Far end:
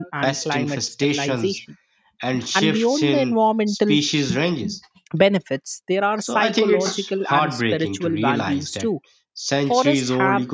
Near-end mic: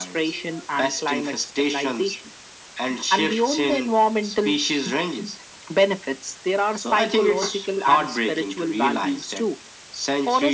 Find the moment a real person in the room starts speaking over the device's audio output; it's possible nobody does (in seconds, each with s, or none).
none